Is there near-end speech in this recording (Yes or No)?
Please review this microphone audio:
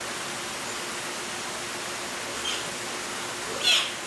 No